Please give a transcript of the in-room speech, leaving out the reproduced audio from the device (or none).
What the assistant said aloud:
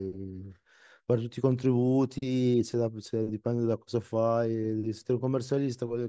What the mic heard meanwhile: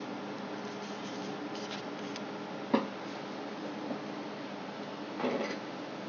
none